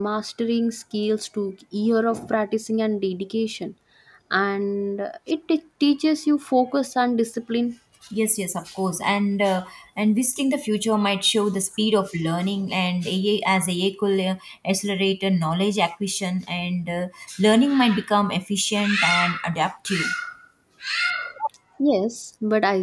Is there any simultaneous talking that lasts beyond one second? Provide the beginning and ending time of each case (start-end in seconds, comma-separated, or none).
none